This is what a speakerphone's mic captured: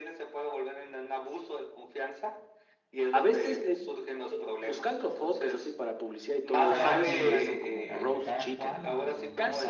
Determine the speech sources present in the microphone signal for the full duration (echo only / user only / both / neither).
both